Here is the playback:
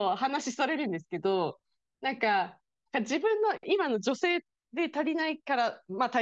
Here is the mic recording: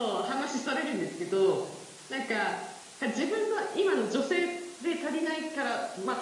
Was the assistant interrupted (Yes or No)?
No